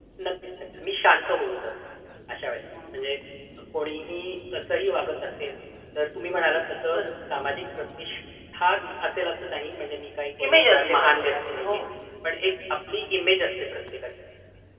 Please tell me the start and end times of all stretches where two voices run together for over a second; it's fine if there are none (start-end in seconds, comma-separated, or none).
10.4-11.8